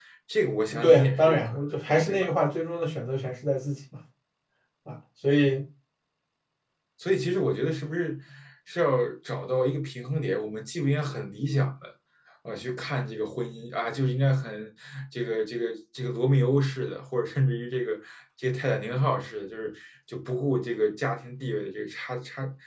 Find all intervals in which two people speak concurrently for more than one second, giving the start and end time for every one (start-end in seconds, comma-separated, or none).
0.8-2.3